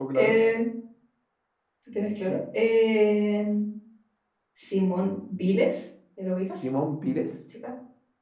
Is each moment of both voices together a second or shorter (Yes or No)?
Yes